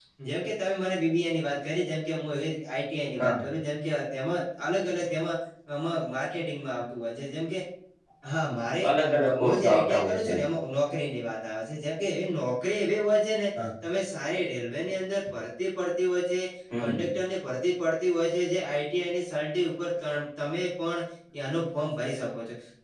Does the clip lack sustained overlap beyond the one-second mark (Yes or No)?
No